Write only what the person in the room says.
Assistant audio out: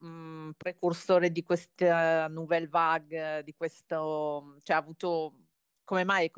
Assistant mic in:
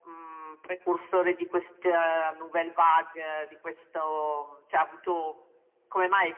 none

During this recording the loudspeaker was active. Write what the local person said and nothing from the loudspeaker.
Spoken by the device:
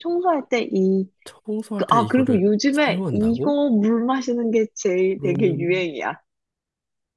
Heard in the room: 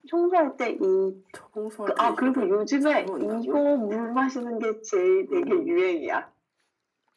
none

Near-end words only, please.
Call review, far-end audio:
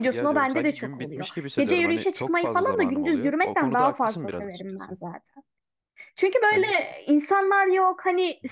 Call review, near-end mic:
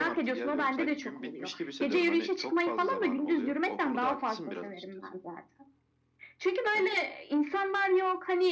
none

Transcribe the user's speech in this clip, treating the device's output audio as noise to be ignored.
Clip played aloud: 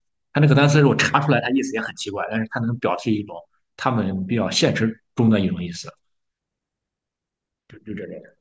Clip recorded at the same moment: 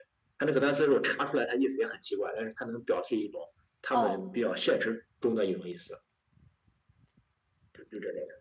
哦，

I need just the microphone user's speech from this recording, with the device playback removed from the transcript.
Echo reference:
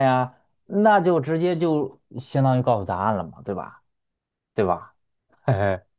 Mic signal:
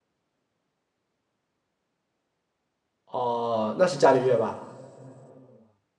哦，那是伽利略吧？

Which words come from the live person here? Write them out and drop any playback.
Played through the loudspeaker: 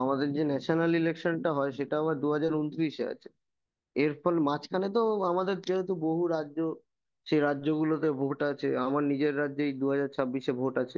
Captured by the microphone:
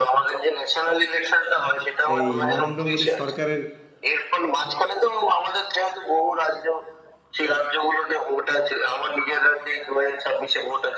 এই নরেন্দ্র মোদীর সরকারের

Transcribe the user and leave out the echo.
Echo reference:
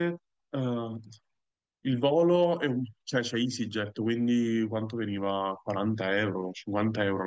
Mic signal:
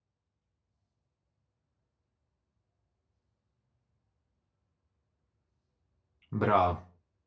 Bravo.

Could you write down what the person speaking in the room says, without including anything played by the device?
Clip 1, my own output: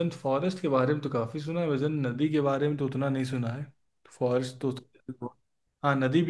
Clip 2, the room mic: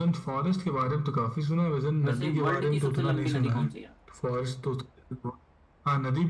वैसे वर्ल्ड की सबसे लंबी नदी कौन सी है,

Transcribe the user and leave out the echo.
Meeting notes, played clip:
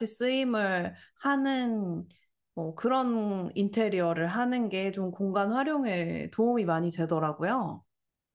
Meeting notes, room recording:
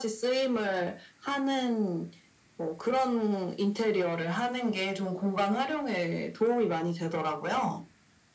none

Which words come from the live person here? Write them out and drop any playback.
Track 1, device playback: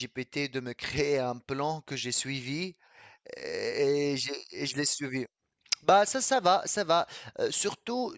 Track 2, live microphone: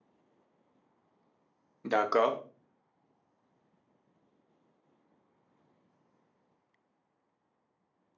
D'accord.

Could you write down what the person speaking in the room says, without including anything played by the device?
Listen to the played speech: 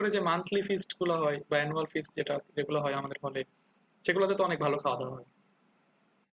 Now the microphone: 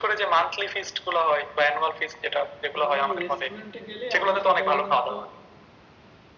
আহ রেস্টুরেন্টে গেলে আমি সাধারণত

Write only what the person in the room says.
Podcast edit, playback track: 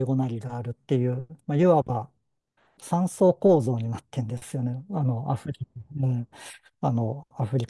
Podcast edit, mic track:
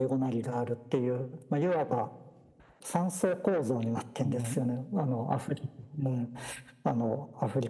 うん

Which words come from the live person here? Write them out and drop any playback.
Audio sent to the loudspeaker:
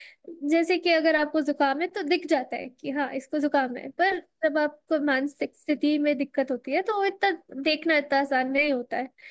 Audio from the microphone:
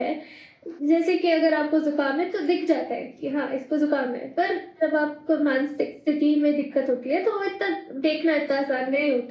none

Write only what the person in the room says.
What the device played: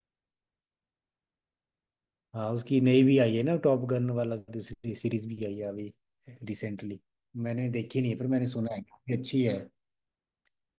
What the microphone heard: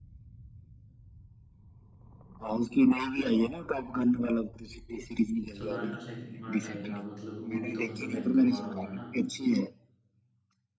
सलार का सेकंड पार्ट आएगा मतलब वो भी तो मतलब भयंकर वाला होगा ना

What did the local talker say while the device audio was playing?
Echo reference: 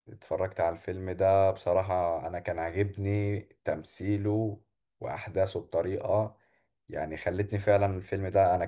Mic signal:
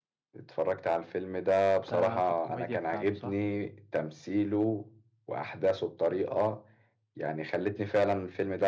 ده في الكوميديا بتاعته صح؟

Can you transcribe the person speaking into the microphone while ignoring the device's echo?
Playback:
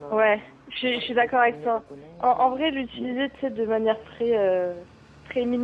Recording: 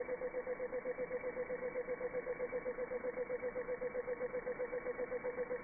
none

